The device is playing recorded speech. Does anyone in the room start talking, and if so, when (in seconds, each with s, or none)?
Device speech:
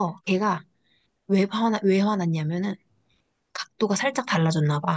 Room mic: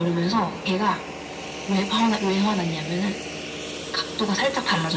none